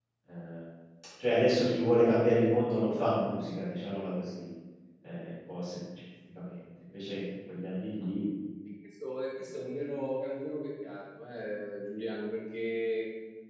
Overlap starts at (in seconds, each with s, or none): none